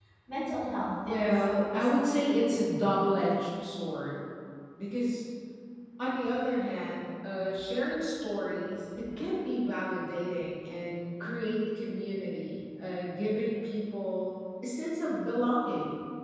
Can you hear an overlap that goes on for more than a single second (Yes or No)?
Yes